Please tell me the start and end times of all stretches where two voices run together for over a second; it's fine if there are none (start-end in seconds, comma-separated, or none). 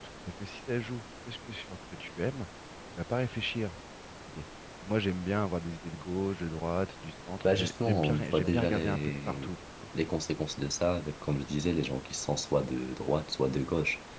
7.4-9.5